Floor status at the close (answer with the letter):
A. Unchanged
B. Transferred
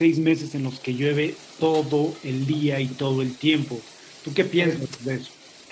B